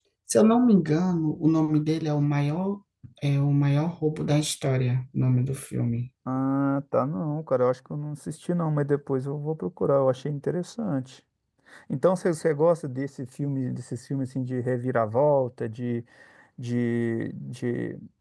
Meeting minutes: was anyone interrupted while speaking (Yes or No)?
No